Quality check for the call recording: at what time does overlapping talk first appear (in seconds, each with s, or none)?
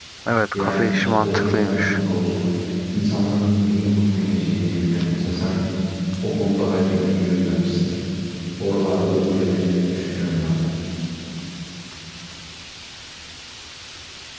0.5 s